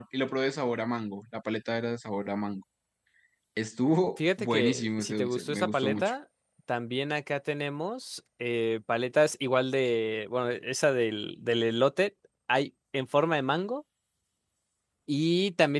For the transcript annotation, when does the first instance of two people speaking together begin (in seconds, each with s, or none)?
4.2 s